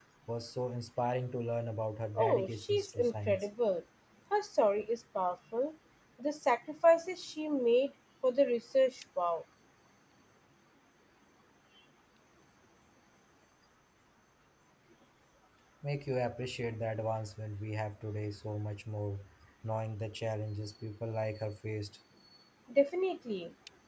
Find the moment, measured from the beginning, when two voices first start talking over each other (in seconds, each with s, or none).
2.1 s